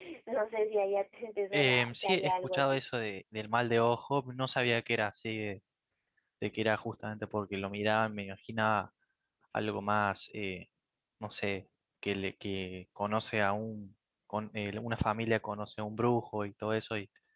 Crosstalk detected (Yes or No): Yes